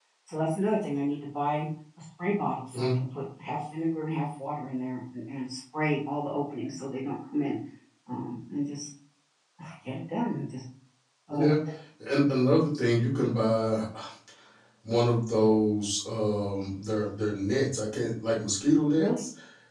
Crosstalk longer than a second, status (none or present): none